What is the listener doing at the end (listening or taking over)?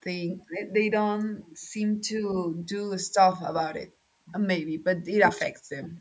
listening